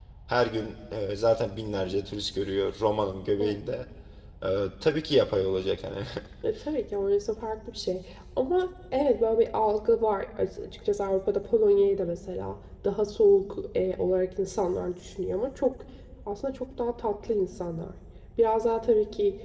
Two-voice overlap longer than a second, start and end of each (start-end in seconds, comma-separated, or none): none